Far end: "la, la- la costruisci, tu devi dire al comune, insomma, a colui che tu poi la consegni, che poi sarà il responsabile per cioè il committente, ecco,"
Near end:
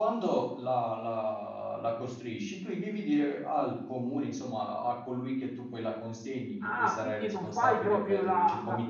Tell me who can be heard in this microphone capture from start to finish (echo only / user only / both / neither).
both